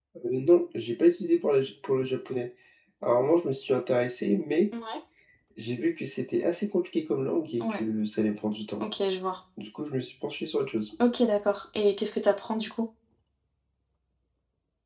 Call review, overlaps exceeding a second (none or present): none